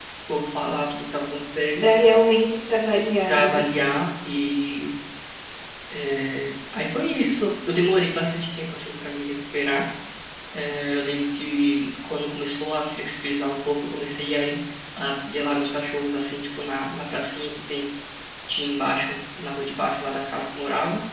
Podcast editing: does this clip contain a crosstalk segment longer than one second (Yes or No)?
No